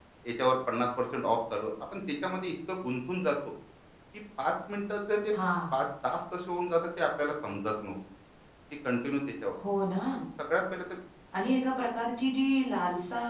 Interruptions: none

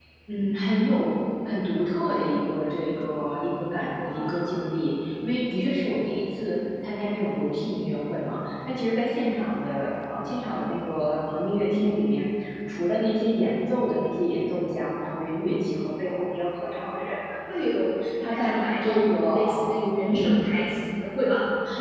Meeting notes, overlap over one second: present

